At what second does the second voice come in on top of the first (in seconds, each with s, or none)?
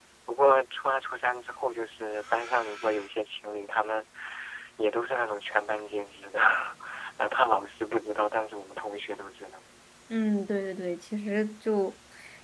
none